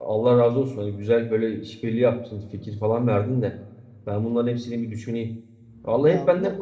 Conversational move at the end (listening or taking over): listening